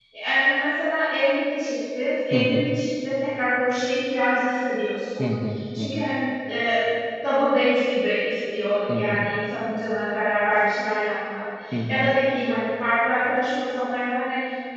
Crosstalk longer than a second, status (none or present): none